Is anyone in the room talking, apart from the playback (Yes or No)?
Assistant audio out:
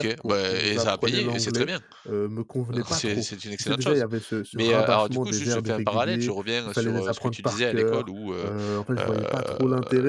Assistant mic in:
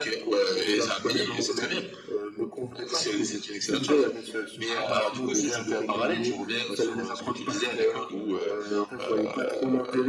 No